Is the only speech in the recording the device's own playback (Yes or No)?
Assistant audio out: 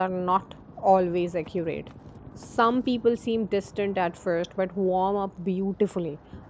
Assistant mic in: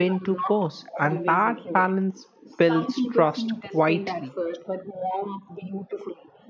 No